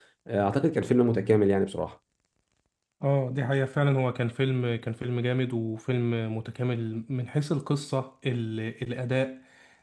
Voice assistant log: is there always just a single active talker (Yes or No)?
Yes